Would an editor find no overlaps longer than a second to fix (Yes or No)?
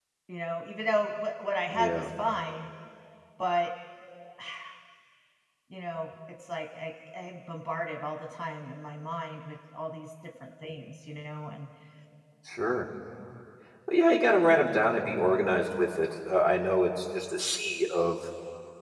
Yes